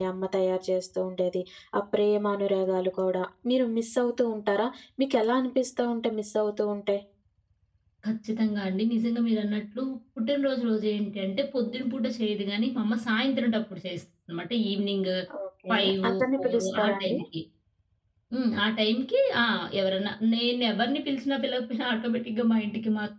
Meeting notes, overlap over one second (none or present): present